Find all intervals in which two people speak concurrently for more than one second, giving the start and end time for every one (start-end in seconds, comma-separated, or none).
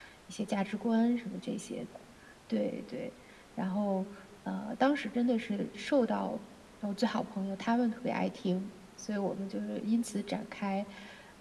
none